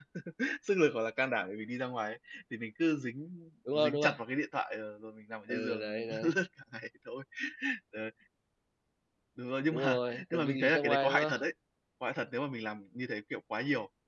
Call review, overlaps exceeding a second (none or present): present